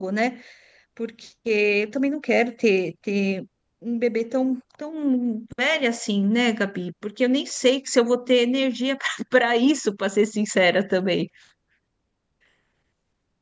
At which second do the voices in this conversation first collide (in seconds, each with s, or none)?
none